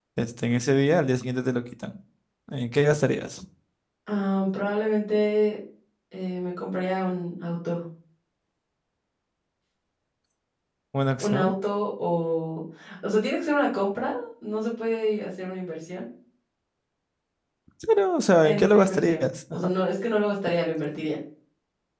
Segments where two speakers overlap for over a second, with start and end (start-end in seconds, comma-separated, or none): 18.4-19.7